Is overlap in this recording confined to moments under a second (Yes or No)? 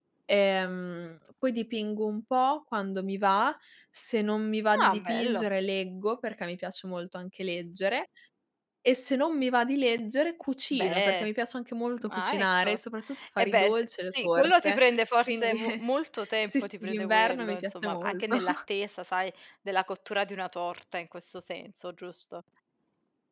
No